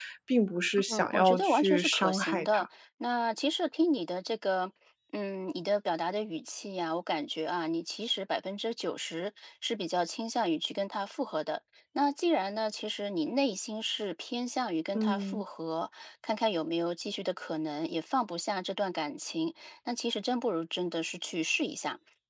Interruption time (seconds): 0.9 s

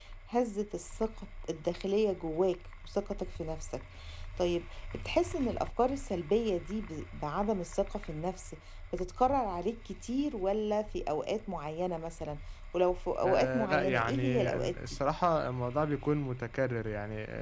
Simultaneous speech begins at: 13.2 s

